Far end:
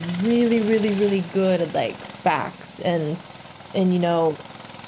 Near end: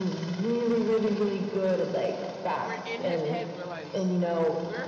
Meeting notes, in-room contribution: present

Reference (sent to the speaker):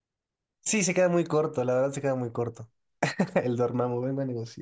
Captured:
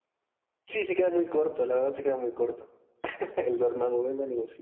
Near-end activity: none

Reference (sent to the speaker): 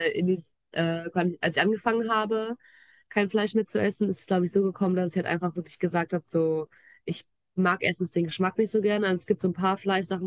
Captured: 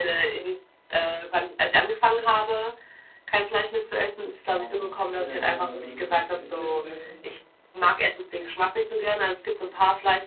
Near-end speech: present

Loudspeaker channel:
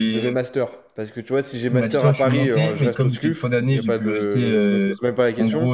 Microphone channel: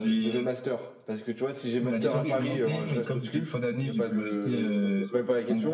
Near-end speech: present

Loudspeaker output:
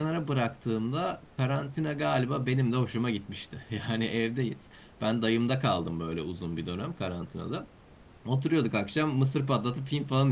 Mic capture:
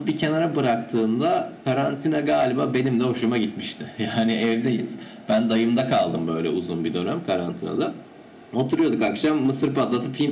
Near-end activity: none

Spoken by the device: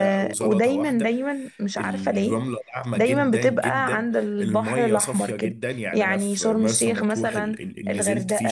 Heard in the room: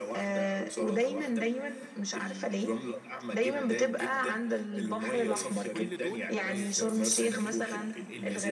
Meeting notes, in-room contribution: present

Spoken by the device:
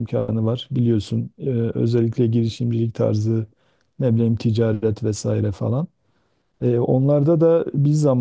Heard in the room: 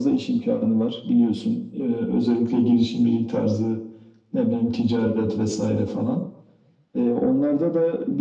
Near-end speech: none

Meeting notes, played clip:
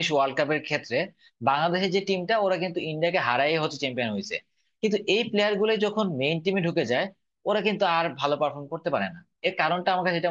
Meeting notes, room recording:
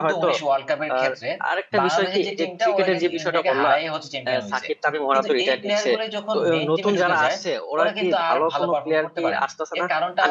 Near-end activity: present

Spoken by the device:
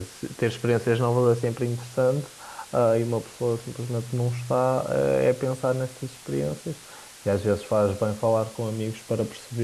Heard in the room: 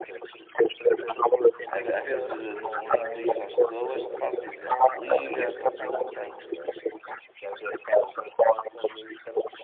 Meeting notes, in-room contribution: present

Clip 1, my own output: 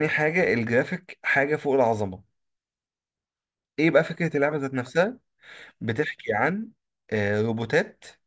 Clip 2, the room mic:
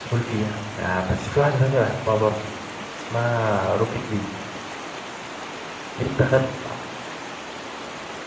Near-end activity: present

